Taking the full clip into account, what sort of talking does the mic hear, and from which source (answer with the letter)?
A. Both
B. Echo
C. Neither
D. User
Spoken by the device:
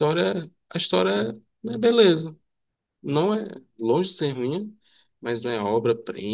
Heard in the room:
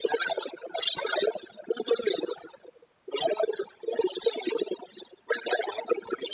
B